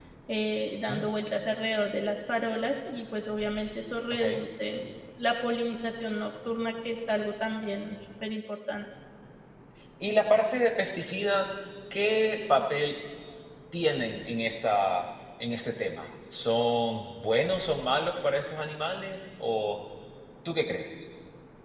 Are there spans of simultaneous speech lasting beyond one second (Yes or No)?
No